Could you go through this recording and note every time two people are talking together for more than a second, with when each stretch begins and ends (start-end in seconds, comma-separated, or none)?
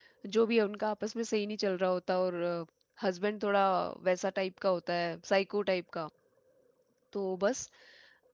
none